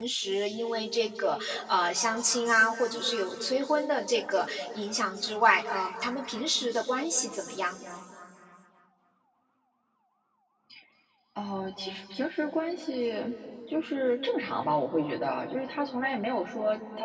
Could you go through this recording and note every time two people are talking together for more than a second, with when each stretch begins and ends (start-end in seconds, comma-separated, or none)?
none